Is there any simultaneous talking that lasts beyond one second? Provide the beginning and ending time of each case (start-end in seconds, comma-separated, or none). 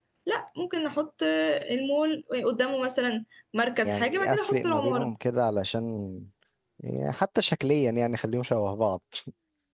3.8-5.1